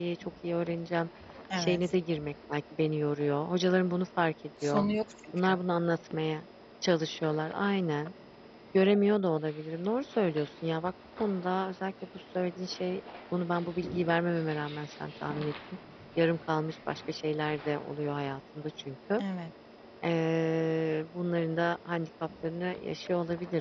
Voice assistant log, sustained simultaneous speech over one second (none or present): none